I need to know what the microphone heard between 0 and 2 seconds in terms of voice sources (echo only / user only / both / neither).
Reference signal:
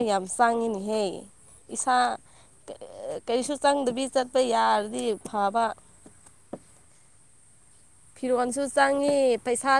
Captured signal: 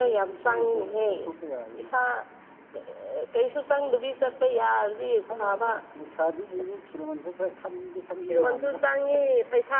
both